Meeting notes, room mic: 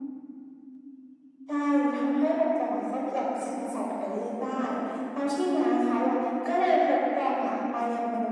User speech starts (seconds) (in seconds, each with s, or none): none